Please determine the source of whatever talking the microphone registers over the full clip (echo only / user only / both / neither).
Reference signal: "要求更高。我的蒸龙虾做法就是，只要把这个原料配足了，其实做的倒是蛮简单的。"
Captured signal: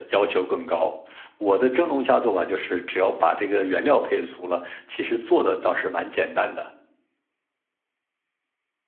echo only